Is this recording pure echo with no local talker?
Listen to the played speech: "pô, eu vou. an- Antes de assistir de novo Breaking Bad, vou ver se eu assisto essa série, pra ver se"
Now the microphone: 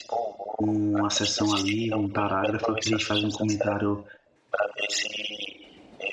No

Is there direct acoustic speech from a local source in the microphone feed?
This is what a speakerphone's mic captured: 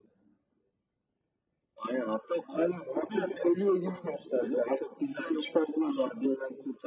No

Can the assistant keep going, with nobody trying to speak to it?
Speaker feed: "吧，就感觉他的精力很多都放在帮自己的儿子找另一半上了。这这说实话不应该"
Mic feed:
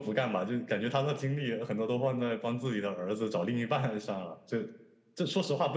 Yes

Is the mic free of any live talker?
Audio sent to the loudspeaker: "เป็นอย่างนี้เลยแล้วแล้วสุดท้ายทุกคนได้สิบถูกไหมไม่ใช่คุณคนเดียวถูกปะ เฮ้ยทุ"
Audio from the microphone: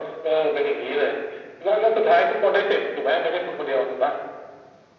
Yes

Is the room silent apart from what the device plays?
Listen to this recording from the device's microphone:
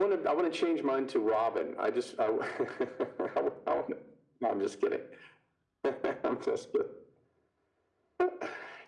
Yes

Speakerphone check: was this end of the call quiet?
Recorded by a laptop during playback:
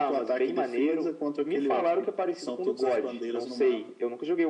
Yes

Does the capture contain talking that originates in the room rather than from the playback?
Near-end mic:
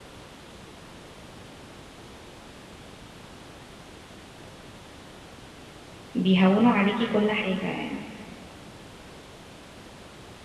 Yes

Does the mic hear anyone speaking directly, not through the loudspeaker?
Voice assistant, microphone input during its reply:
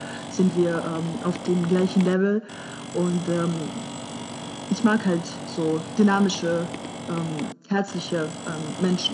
No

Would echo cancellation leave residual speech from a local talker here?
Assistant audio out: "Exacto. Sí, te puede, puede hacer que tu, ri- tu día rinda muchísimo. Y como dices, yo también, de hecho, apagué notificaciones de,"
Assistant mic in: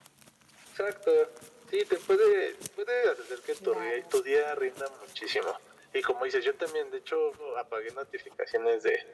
Yes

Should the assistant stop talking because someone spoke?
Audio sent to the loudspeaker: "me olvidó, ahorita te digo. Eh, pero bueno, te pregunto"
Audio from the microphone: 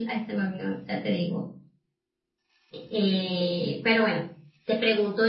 No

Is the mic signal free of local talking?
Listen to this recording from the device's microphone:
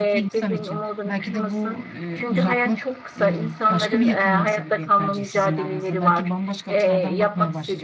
No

